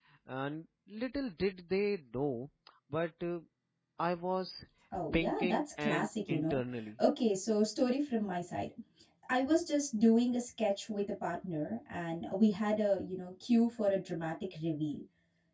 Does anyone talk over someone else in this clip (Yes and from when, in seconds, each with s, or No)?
Yes, from 5.1 s